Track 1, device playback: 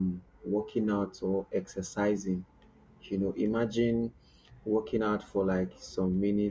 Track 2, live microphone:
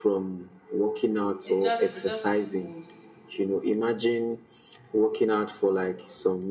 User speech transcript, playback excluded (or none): it just it just goes.